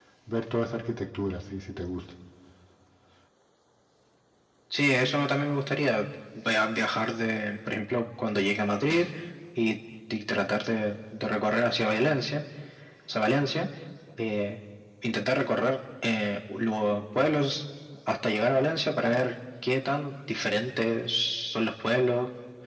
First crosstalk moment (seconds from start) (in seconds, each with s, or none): none